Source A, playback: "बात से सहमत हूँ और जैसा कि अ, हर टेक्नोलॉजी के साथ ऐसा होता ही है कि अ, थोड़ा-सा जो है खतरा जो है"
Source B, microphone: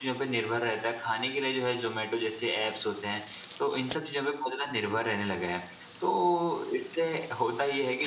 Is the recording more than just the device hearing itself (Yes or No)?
Yes